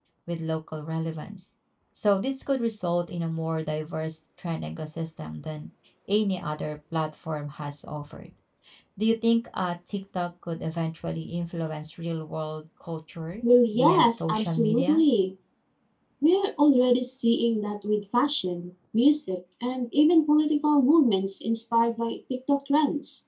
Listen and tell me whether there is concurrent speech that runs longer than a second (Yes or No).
Yes